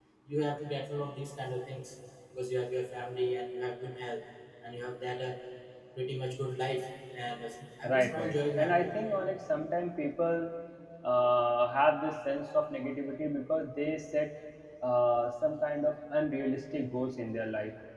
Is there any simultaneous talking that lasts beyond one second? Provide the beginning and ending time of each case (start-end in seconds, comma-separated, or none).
7.8-9.1